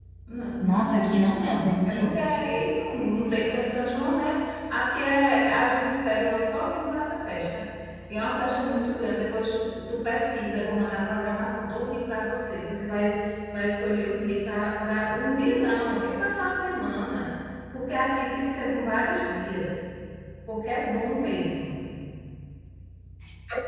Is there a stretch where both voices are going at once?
Yes, from 0.6 s

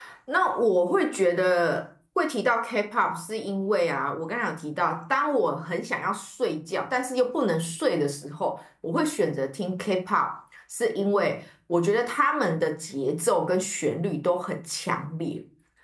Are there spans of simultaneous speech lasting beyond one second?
No

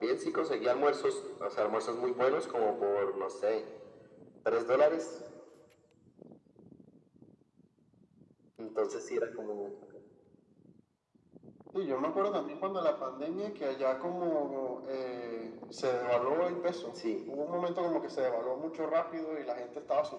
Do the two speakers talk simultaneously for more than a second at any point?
No

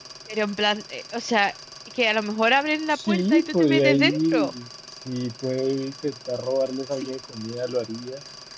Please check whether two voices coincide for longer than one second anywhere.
Yes, from 2.9 s

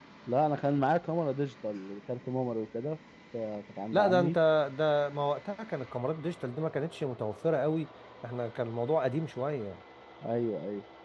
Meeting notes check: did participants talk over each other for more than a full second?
No

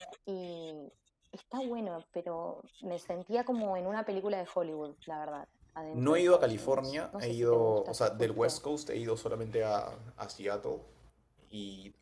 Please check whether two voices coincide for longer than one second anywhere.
Yes, from 5.9 s

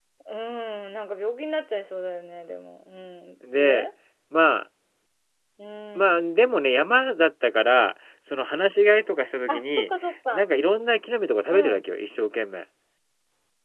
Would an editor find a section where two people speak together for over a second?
No

